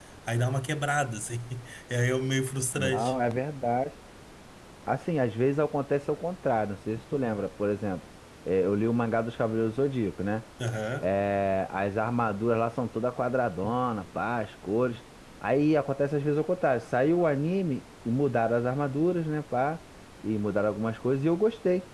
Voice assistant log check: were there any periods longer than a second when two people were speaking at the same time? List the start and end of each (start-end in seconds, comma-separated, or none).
none